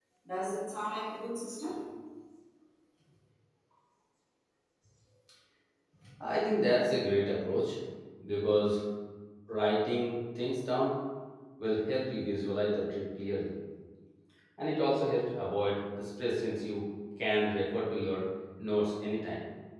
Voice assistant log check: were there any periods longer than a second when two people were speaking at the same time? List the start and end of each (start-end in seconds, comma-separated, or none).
none